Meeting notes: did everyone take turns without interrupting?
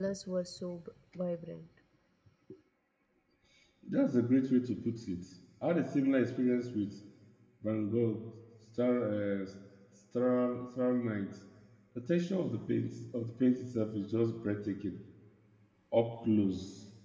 Yes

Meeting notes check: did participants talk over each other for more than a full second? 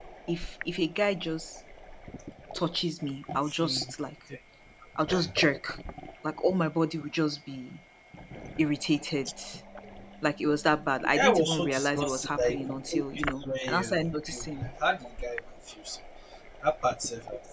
Yes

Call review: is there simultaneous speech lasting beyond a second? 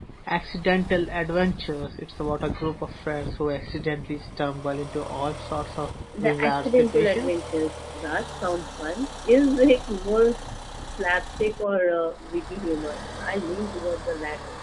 Yes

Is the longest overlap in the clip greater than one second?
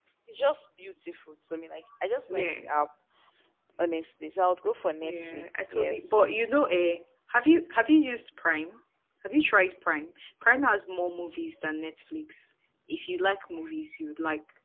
Yes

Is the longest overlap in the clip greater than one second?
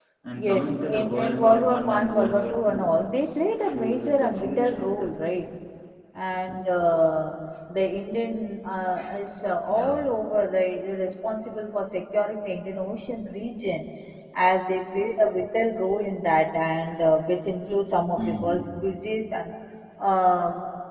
Yes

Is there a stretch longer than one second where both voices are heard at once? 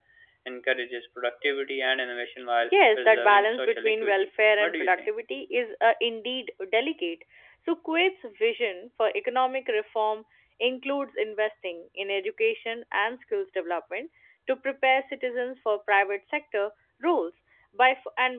Yes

